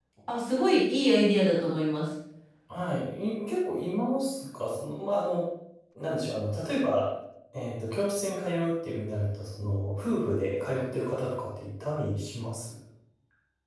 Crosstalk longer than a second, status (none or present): none